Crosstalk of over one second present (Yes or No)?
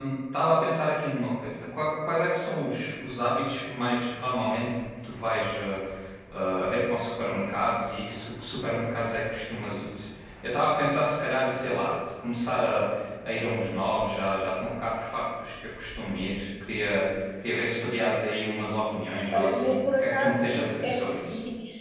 Yes